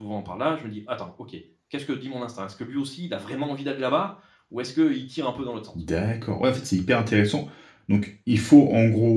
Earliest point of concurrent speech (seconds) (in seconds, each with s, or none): none